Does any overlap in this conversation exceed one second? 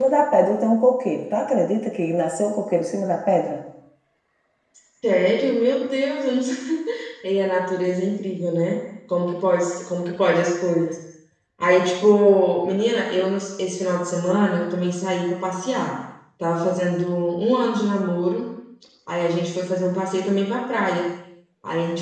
No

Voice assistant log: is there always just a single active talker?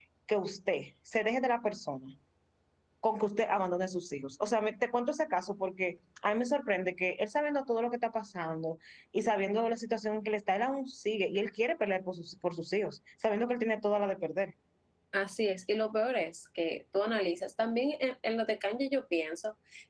Yes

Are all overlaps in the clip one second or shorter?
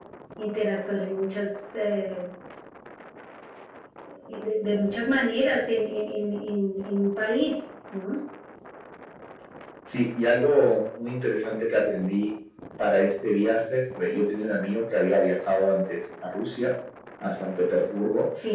Yes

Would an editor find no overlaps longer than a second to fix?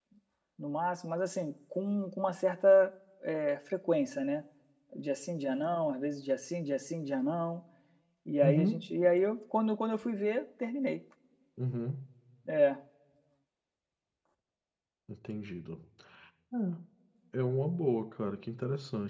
Yes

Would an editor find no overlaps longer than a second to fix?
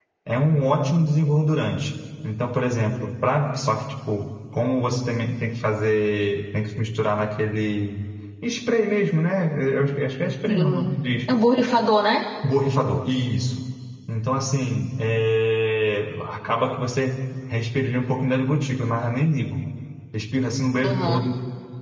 Yes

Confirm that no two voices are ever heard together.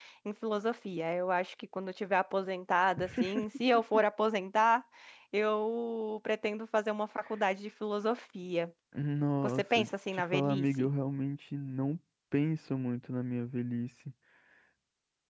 No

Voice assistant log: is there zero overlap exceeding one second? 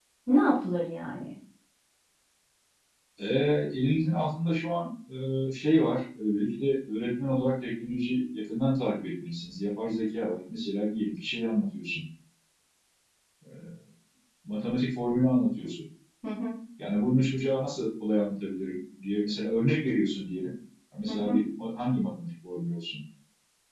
Yes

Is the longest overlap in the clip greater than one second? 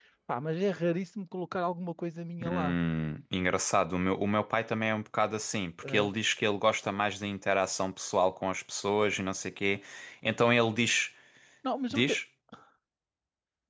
No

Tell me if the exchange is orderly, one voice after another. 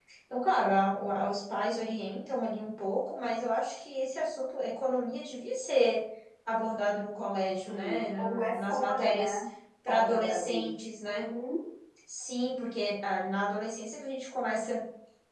No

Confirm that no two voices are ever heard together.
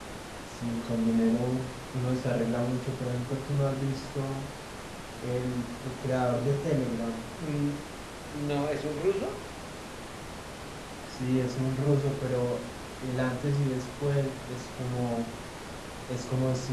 Yes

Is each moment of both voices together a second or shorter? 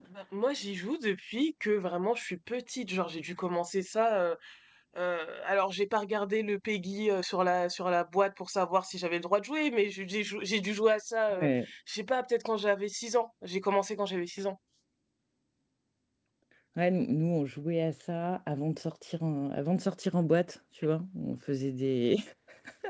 Yes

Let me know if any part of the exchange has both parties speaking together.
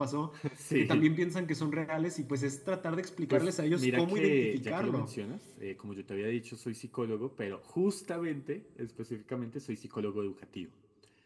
Yes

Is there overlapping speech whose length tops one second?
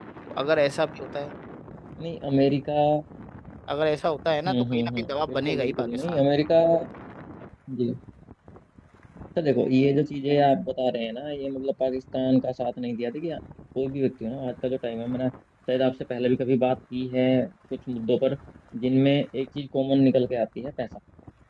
Yes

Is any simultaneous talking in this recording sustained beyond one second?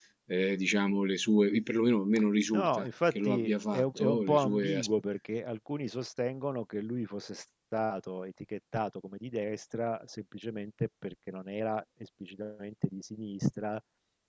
Yes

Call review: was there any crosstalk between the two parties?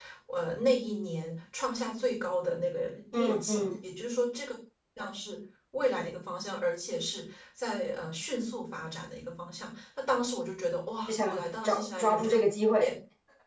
Yes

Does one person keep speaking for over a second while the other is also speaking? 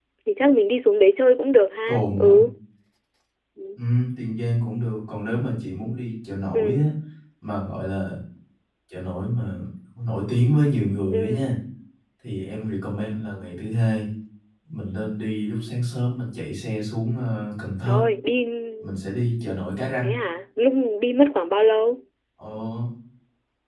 No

